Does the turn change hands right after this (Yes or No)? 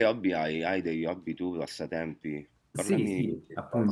Yes